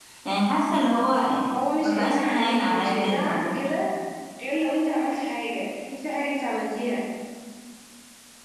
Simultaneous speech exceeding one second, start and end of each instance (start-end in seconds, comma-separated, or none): 1.8-3.7